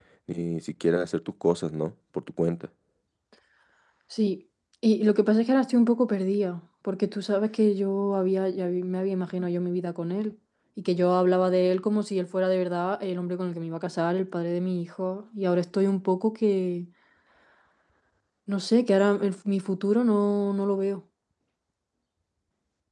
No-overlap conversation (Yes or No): Yes